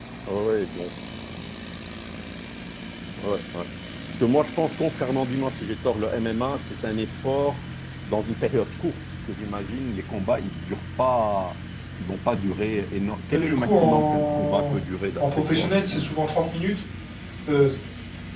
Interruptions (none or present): present